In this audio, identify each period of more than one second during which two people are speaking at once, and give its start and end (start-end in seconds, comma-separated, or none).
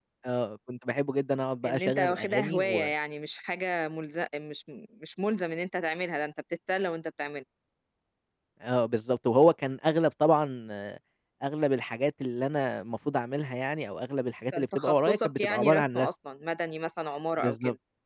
1.6-2.9, 14.5-16.1